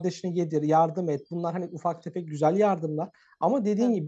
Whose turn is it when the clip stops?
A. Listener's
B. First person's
B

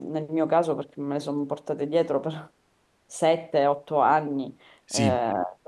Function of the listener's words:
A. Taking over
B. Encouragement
B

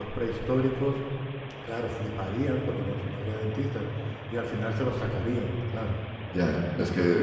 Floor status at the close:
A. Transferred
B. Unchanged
A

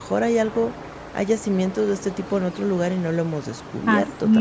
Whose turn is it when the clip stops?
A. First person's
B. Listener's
B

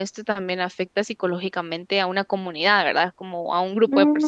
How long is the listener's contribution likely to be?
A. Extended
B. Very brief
A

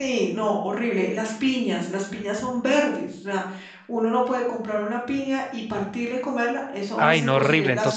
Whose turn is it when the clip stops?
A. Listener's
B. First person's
A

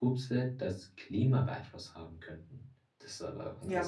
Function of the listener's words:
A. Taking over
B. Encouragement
A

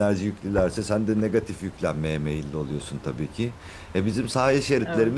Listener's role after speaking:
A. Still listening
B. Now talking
A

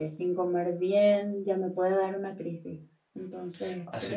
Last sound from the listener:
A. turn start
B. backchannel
A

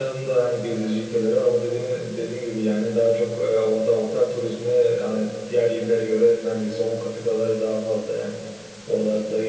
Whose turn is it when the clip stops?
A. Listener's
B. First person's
B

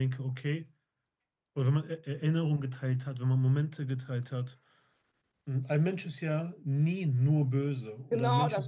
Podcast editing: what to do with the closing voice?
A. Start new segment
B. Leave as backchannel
A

